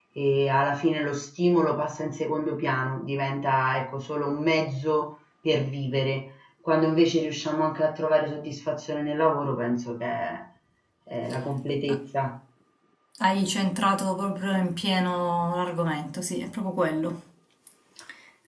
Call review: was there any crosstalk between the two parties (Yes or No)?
No